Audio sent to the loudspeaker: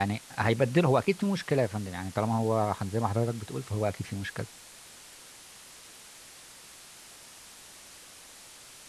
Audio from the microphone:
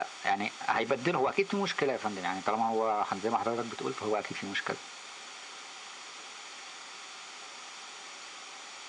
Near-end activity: none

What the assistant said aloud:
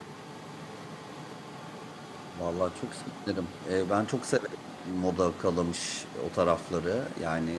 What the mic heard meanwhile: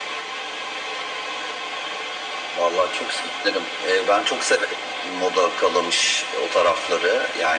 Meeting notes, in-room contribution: none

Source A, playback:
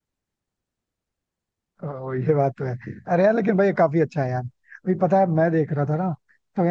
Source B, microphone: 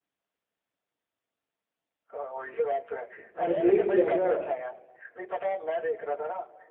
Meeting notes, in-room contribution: present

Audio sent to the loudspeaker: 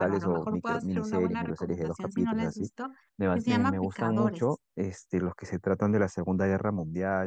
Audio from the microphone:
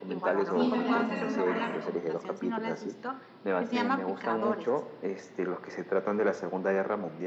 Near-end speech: present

